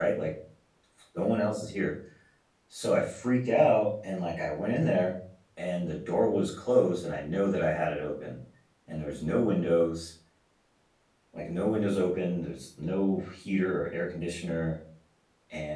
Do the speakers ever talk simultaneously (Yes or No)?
No